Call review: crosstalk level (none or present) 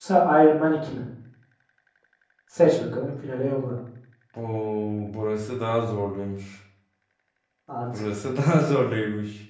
none